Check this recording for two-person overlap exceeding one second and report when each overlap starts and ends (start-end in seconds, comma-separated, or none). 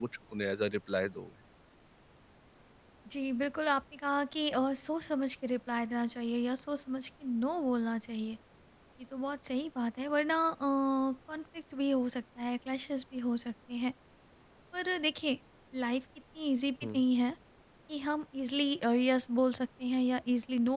none